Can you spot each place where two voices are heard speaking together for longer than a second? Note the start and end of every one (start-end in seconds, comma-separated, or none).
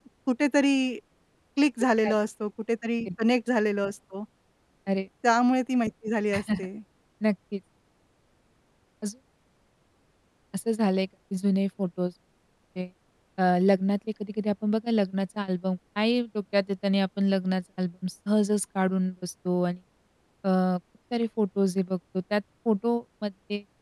none